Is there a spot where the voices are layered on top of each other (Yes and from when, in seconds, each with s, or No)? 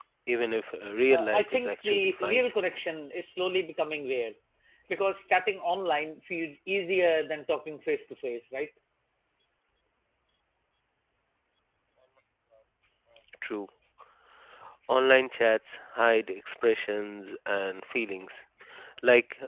Yes, from 1.1 s